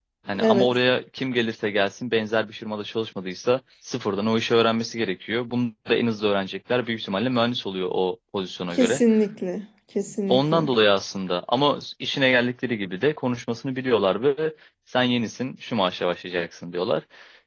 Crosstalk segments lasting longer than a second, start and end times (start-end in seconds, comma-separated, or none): none